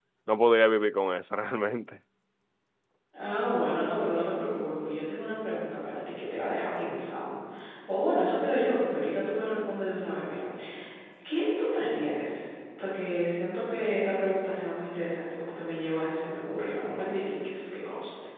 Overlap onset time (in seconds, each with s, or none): none